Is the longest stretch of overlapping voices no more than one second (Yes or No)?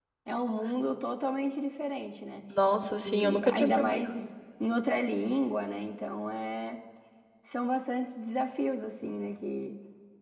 No